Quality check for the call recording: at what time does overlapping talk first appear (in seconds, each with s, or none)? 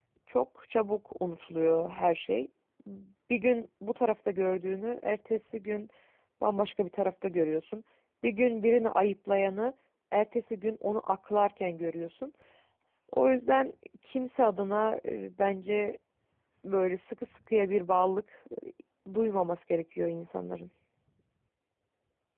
none